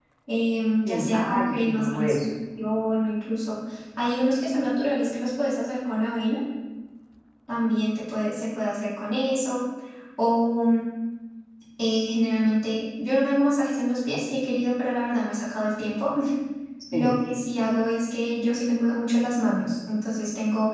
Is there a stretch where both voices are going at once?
Yes, from 0.8 s

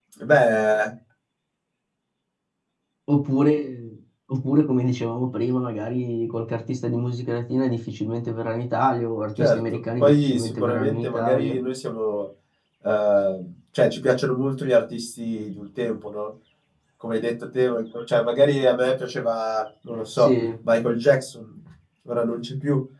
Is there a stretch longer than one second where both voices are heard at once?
Yes, from 9.4 s

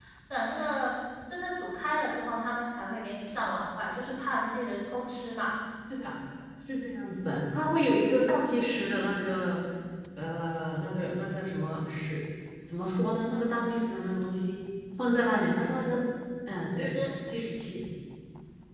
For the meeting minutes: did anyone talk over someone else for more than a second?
No

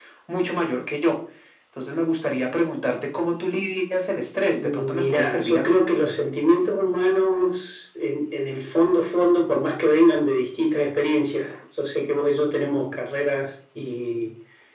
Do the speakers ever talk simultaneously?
Yes, from 4.6 s

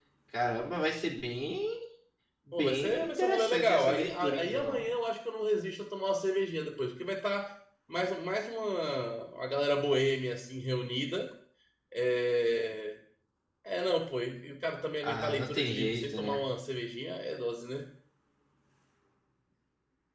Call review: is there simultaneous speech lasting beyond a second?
Yes, from 2.5 s

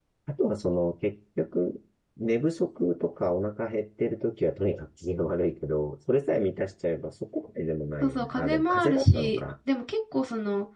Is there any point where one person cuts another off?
Yes, from 8.0 s

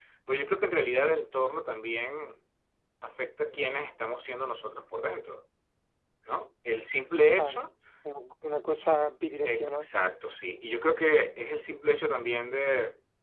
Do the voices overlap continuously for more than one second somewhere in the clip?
No

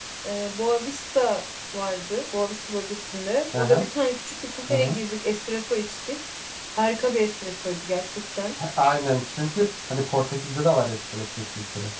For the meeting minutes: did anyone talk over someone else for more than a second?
No

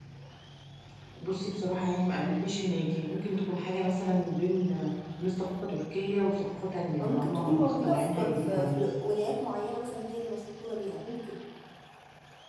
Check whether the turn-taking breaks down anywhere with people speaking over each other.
Yes, from 7.0 s

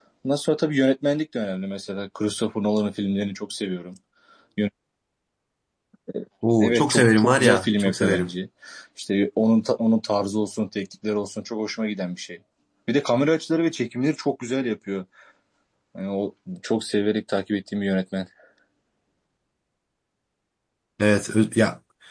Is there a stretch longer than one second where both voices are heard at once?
Yes, from 6.6 s

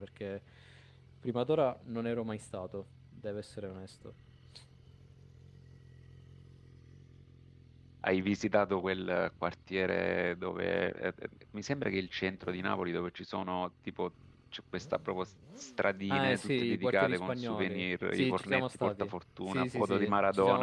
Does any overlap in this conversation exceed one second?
Yes, from 16.1 s

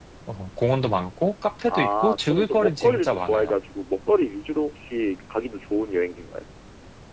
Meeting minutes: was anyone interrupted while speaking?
Yes, from 1.7 s

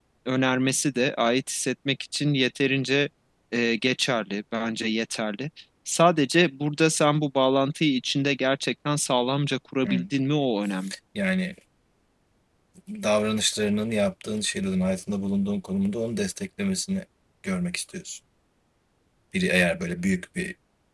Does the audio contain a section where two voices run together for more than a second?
No

